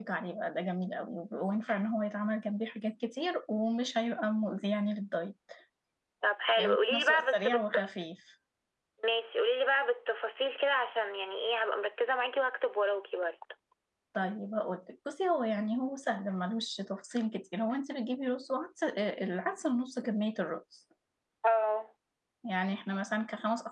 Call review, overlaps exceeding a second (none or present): present